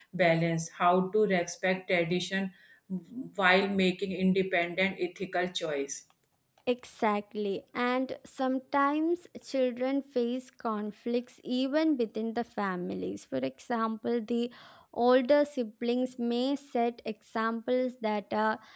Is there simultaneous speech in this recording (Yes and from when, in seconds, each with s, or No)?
No